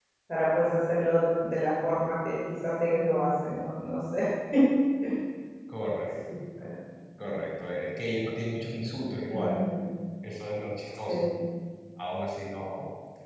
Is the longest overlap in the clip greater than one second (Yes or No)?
No